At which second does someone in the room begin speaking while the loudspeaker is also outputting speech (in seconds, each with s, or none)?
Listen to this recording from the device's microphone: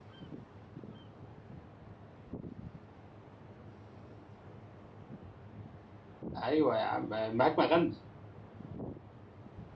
6.4 s